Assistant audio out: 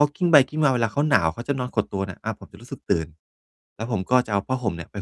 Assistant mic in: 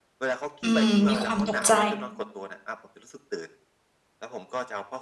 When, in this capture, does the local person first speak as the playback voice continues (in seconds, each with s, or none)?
0.6 s